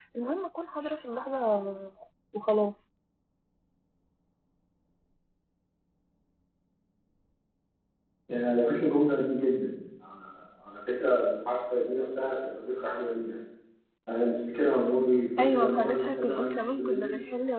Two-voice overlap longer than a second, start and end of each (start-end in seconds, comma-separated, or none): 15.4-17.1